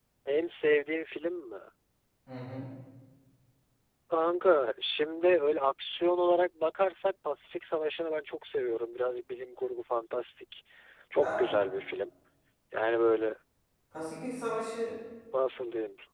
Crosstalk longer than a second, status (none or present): none